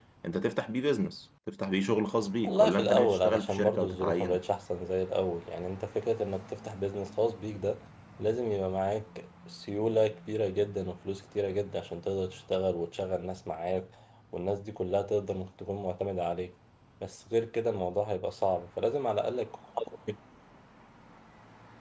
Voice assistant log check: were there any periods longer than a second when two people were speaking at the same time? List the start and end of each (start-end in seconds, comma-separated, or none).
2.4-4.4